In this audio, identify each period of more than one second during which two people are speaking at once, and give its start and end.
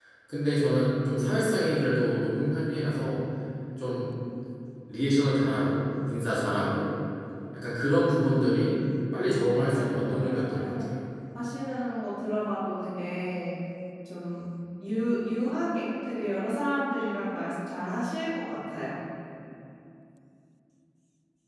9.4-10.9

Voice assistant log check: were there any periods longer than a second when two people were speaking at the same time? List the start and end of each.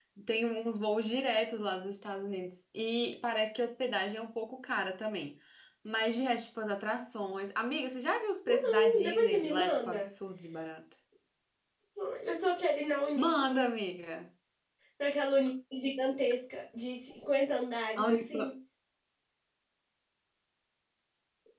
8.4-10.1

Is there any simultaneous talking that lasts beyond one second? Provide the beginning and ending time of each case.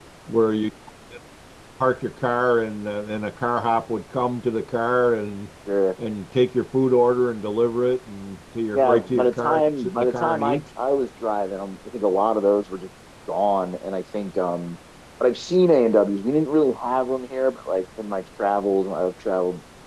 8.7-10.6

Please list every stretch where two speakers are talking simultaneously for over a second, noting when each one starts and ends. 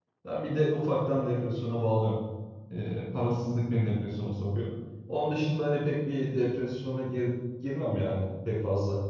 none

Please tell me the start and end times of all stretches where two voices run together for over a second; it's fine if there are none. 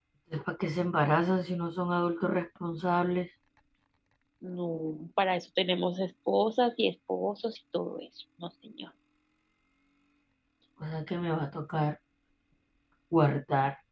none

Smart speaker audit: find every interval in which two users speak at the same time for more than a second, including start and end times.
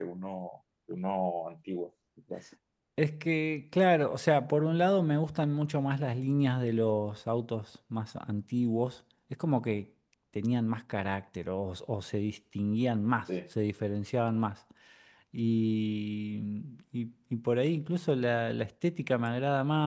none

